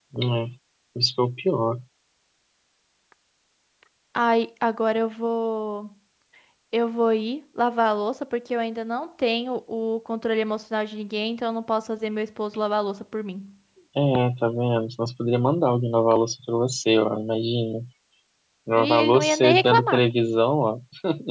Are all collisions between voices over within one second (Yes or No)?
No